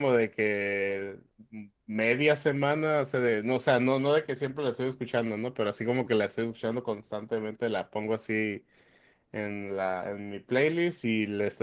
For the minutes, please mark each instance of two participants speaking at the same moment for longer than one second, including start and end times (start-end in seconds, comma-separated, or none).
none